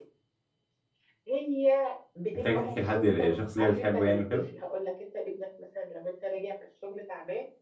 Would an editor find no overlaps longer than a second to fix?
No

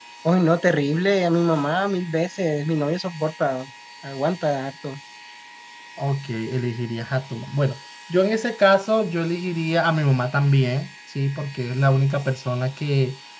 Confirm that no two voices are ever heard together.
Yes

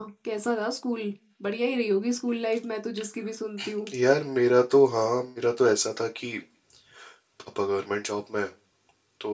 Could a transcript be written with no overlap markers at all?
Yes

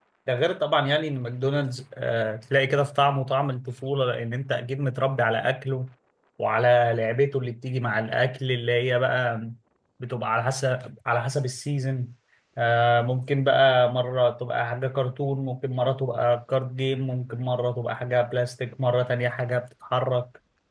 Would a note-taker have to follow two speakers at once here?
No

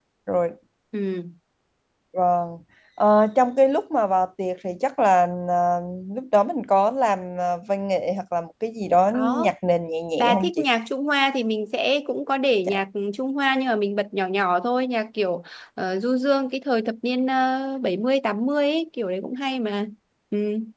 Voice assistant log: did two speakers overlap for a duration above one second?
No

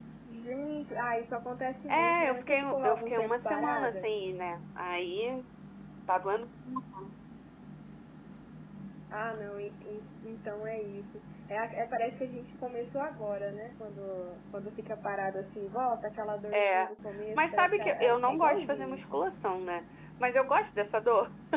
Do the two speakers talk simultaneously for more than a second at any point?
Yes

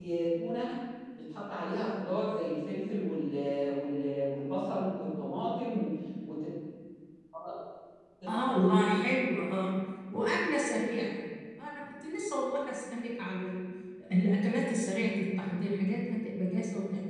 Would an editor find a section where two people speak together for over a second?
No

